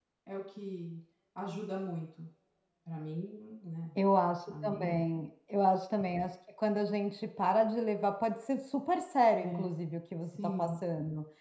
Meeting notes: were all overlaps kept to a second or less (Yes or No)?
Yes